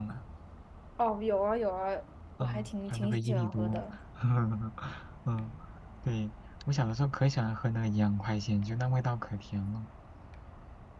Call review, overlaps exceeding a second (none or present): present